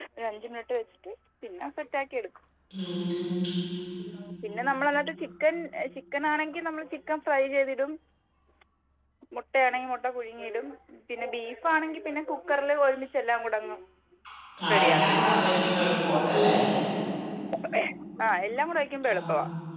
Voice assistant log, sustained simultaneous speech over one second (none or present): none